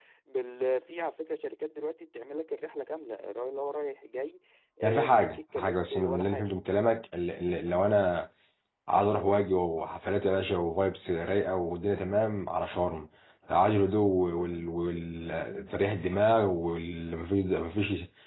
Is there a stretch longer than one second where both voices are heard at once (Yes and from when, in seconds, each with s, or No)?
Yes, from 4.8 s